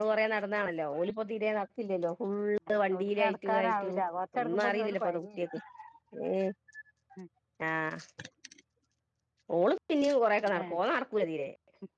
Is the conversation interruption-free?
No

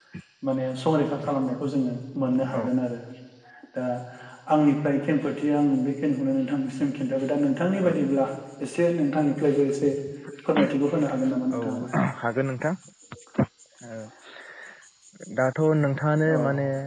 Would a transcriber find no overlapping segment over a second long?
Yes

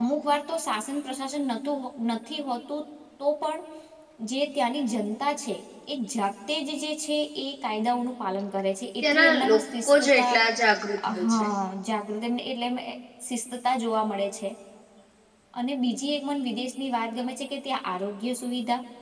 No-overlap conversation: No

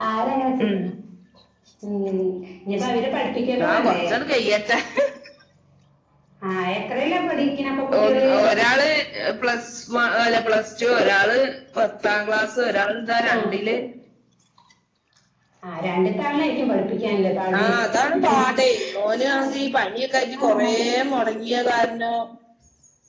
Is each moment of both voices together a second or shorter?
Yes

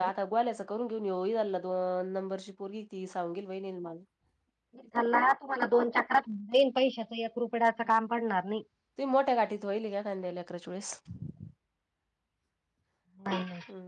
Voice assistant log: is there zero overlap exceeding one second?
Yes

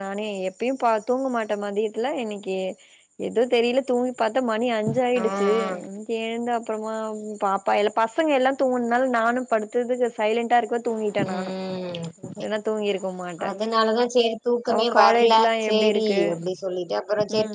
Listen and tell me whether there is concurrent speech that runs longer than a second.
Yes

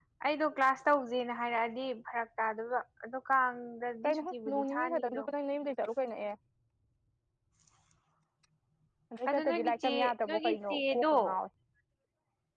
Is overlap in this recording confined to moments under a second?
No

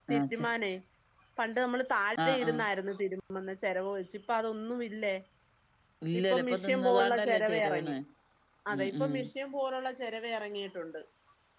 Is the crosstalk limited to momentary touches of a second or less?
No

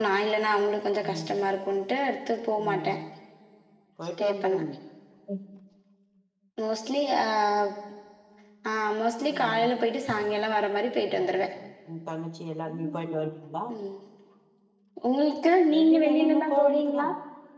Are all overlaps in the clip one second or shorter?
No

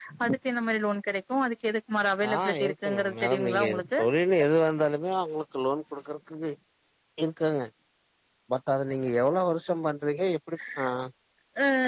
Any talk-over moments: Yes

